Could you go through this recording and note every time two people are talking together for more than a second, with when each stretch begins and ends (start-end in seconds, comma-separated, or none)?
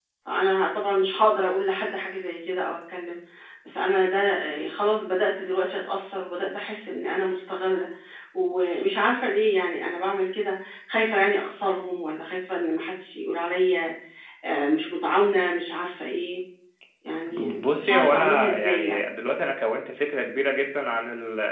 17.3-19.0